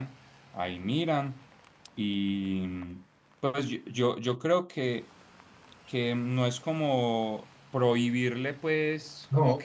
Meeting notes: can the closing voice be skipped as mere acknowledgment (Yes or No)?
Yes